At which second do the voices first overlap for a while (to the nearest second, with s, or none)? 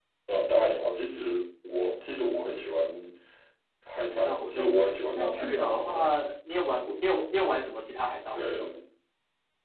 4 s